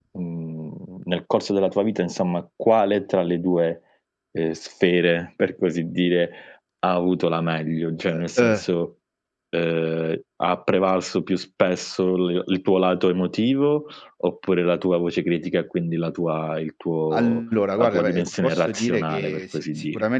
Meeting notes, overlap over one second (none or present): present